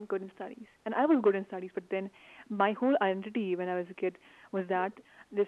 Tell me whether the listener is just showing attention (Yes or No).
Yes